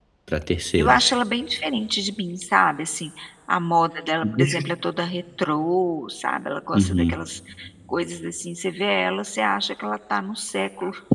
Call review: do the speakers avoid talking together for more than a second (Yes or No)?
Yes